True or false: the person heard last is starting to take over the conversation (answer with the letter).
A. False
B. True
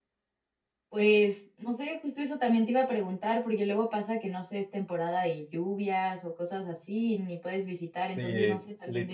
B